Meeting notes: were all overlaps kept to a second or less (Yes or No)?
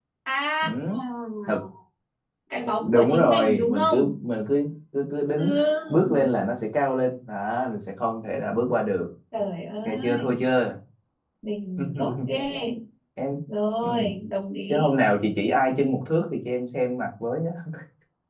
No